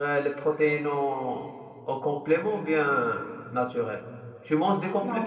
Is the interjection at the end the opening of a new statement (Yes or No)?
Yes